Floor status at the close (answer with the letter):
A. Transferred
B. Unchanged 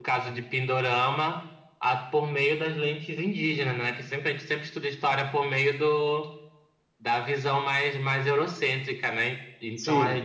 B